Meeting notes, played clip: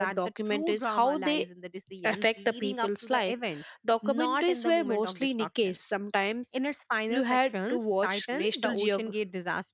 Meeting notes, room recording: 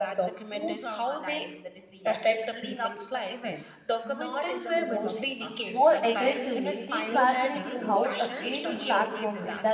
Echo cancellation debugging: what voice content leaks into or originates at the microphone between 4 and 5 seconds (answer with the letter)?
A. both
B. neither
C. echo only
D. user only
C